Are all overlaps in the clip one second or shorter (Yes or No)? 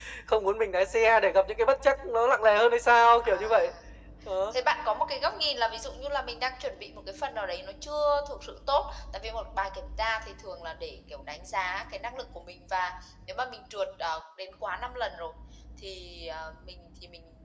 Yes